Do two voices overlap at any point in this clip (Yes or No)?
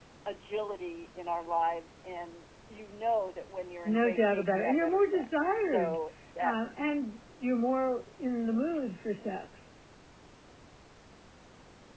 Yes